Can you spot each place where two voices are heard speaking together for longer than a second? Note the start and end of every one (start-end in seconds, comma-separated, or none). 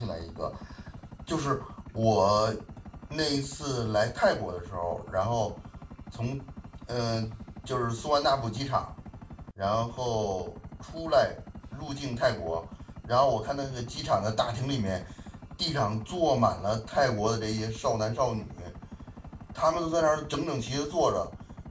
none